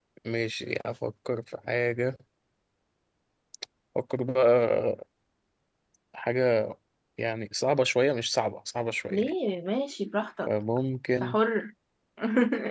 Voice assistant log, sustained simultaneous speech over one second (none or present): none